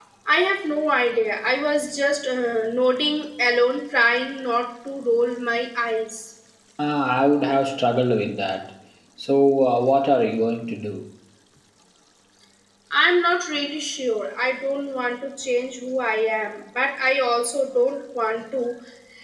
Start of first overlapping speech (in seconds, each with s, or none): none